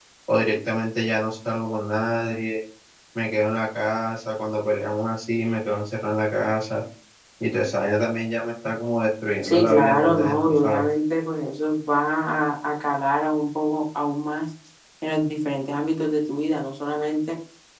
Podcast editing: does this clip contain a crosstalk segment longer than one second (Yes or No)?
Yes